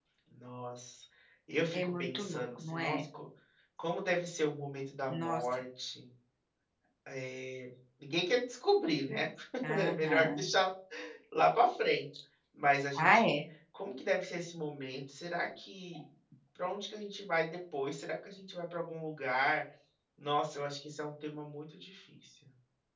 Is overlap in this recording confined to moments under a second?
No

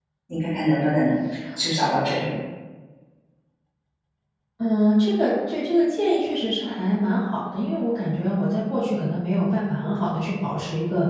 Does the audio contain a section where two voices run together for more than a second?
No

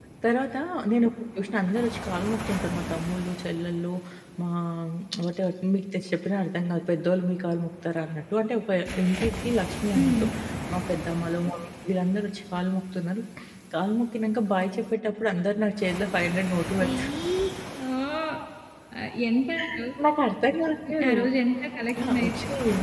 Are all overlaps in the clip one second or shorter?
Yes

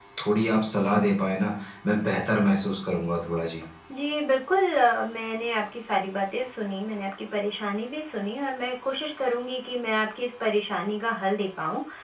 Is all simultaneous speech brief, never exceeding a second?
Yes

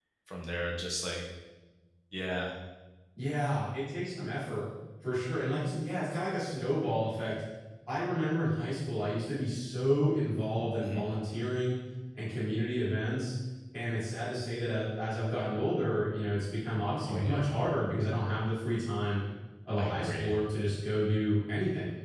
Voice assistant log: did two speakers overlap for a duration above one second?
No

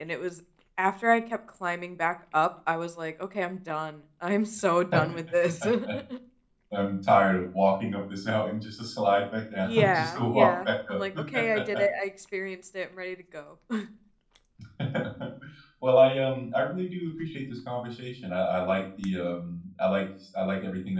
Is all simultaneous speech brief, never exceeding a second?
No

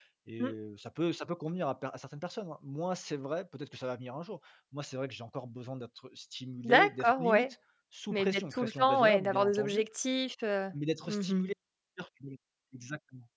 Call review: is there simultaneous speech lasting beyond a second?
Yes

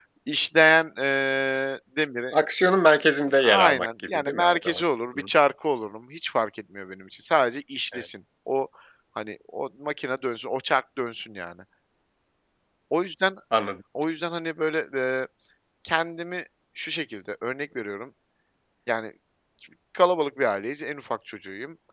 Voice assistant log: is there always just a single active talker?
No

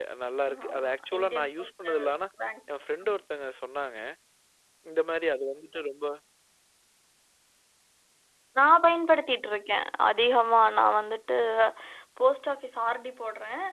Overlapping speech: Yes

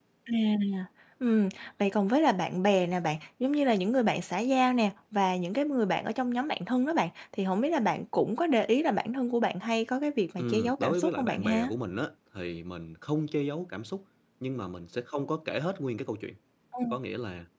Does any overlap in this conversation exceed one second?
Yes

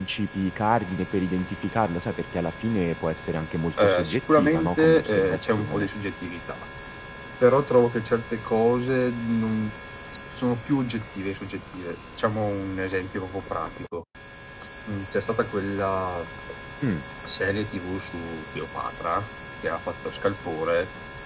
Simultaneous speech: Yes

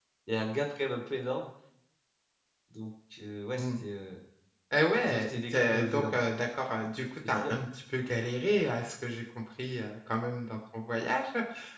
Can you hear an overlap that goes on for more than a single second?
Yes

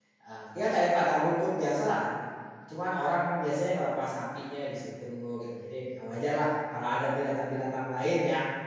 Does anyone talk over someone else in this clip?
No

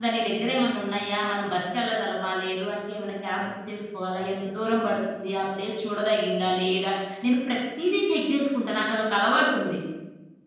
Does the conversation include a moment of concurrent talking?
No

